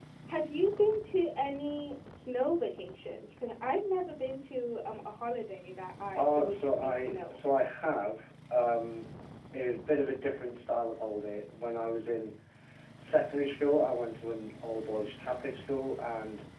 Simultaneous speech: Yes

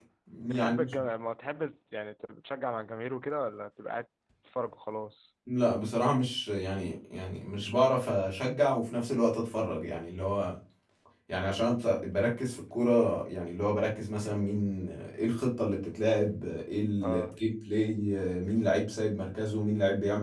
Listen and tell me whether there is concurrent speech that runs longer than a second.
No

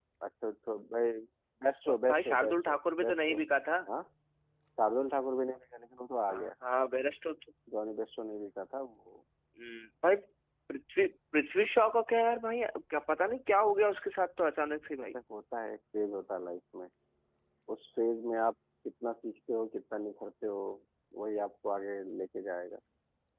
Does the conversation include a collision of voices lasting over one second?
Yes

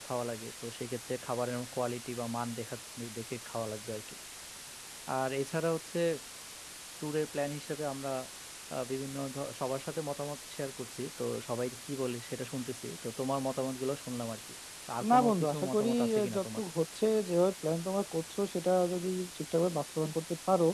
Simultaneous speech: Yes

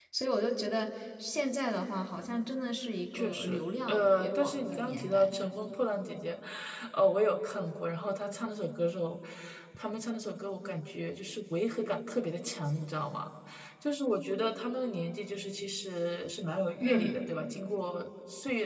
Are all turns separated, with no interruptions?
No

